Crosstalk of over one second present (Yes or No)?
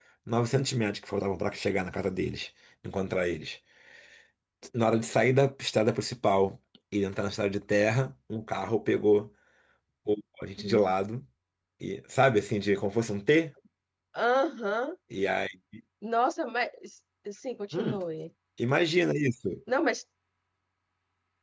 No